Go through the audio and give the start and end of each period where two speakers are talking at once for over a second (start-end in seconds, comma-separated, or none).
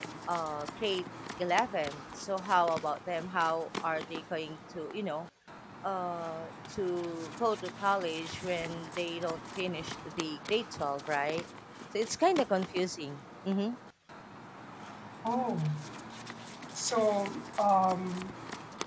none